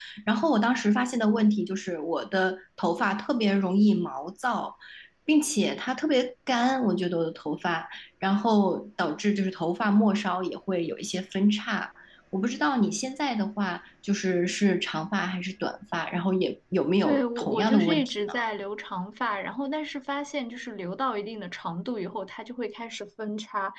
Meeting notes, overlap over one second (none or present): present